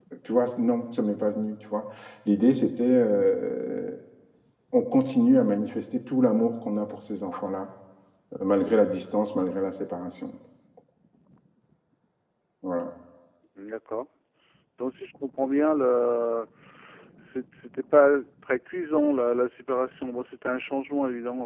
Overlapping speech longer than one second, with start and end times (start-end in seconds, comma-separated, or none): none